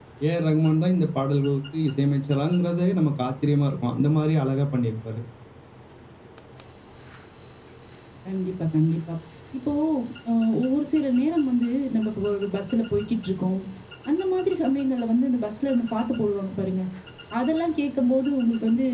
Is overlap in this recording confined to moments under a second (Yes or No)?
Yes